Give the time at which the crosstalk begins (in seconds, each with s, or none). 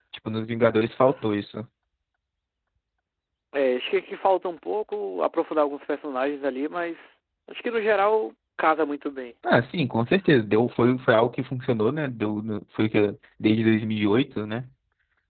none